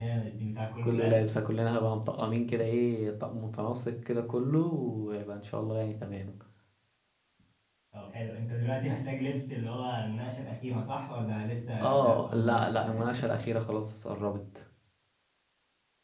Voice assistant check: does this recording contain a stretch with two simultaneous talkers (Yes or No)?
Yes